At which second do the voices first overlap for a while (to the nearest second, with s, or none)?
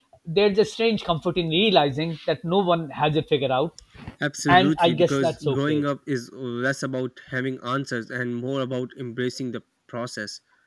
4 s